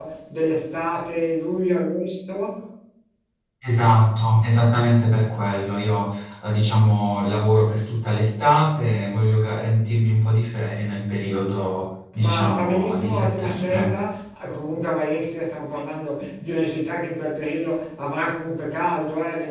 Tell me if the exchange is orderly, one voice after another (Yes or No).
No